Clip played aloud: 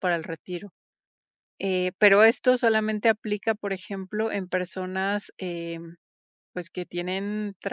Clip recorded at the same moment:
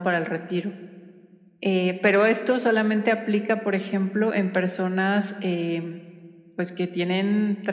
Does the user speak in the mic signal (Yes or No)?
No